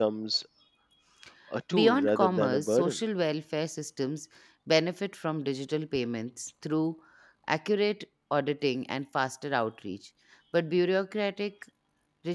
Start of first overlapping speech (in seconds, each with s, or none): 1.7 s